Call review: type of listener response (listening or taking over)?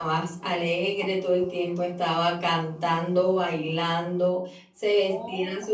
listening